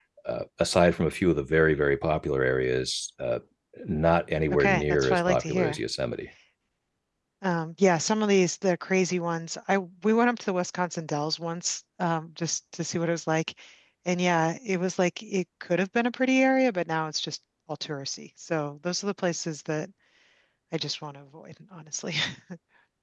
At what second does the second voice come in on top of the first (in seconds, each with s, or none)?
4.5 s